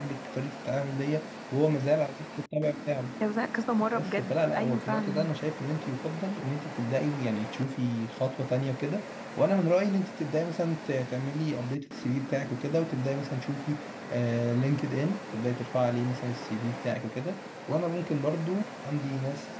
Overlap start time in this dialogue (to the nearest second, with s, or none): 4 s